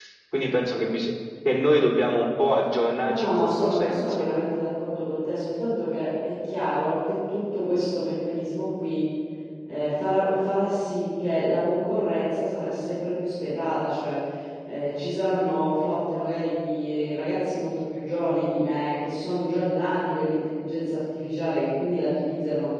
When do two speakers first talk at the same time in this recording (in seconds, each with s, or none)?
3.0 s